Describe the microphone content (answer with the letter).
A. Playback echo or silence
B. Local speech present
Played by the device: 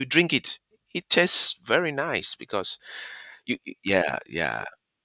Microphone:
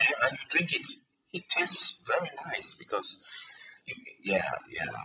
A